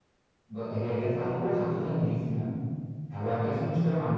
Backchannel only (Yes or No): Yes